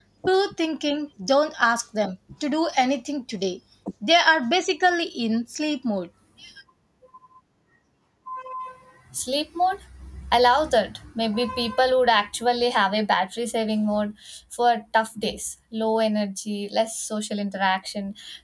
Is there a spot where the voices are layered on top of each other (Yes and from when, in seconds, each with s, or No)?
No